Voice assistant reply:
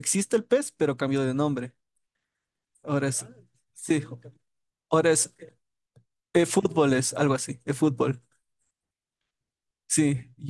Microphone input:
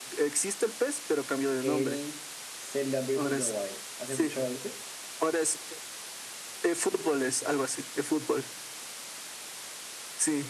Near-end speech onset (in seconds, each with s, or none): 1.6 s